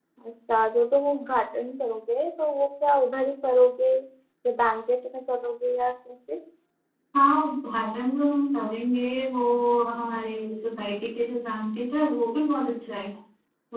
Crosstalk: none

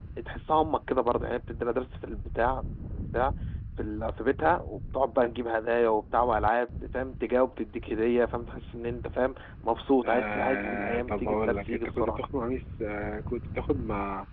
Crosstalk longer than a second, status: present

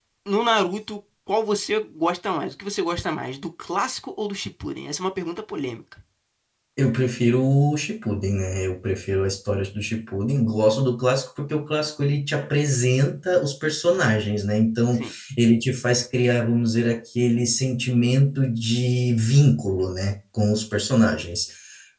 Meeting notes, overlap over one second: none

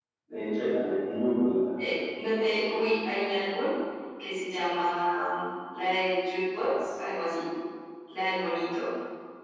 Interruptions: none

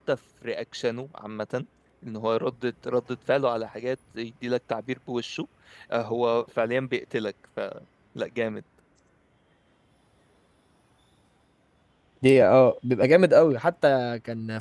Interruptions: none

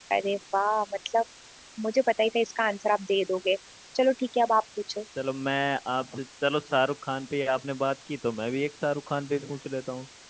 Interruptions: none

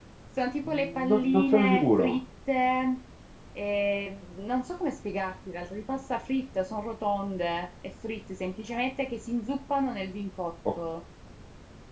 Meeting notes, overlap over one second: present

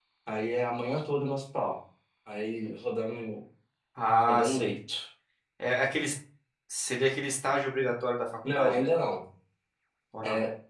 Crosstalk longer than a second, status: none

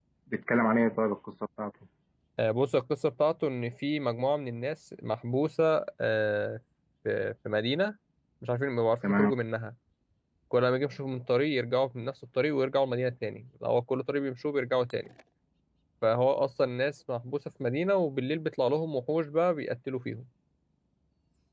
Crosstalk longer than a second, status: none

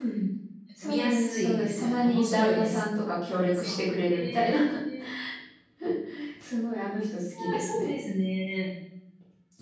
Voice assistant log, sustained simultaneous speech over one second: present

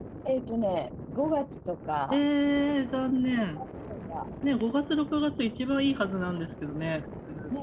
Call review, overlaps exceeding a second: none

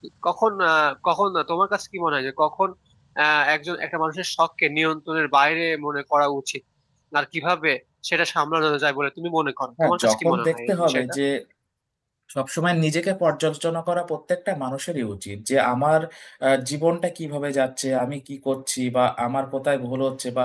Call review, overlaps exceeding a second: present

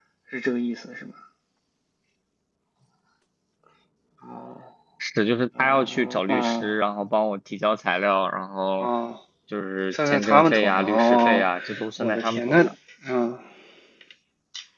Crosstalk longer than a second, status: present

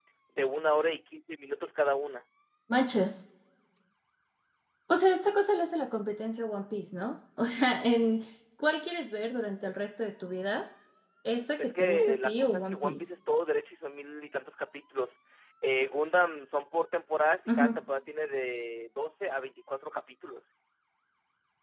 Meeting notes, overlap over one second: present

